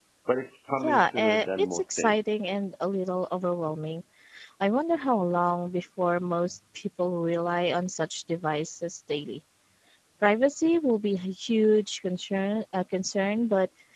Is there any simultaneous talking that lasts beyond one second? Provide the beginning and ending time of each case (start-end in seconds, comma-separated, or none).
0.8-2.1